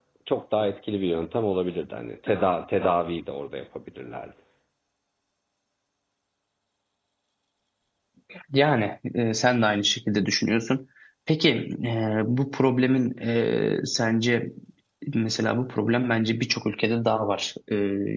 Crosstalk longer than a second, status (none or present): none